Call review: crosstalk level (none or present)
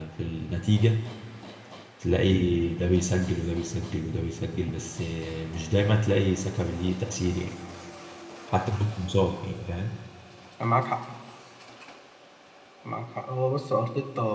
none